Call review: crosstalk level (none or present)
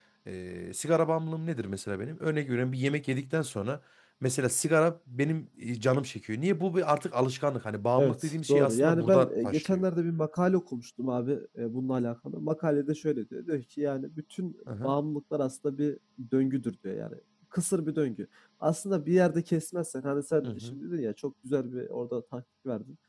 present